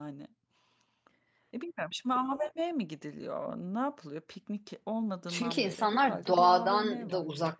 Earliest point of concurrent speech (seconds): 5.3 s

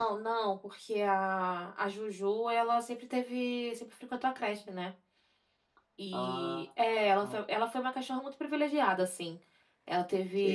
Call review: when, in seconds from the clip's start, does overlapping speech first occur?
6.1 s

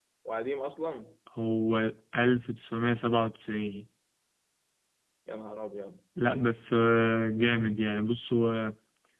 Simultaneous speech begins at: none

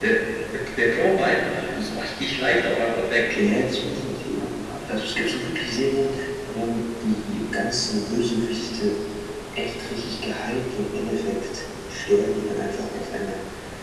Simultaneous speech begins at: none

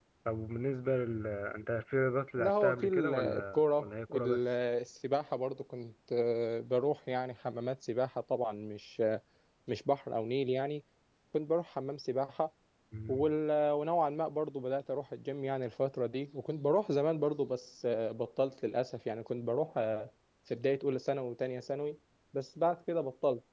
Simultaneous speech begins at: 2.4 s

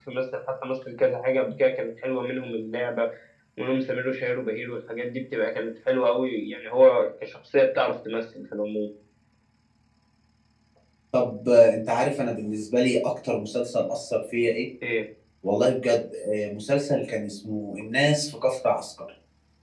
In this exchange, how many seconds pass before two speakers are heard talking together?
none

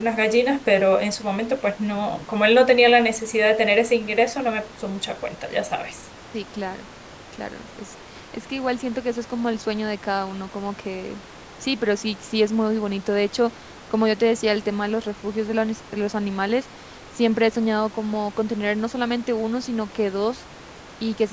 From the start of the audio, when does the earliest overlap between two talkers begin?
none

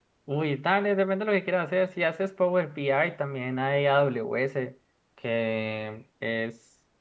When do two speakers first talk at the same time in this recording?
none

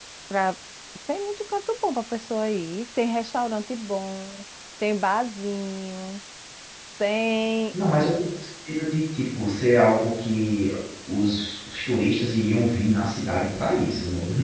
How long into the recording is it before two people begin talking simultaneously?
none

